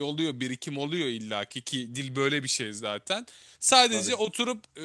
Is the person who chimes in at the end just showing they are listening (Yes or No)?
Yes